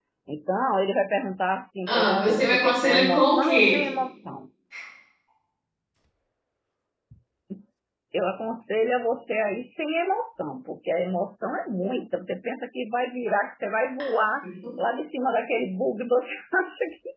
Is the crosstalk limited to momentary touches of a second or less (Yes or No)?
No